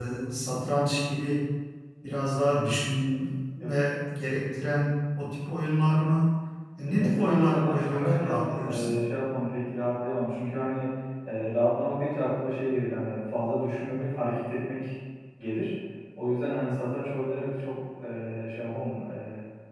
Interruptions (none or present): present